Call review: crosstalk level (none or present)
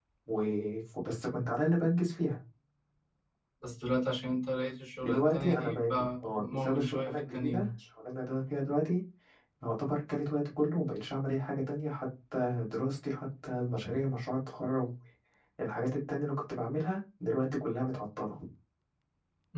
present